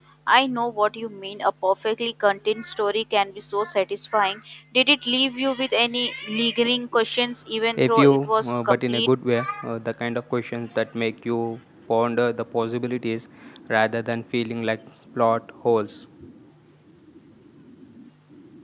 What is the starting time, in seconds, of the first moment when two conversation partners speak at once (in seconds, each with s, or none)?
7.8 s